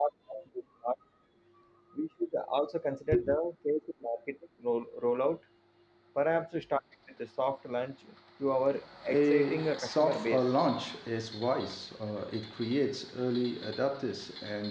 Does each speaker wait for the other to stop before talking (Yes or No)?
No